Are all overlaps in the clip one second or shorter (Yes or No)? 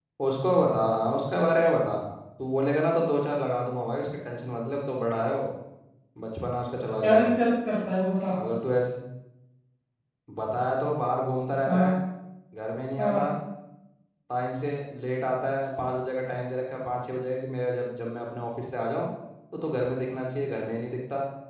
Yes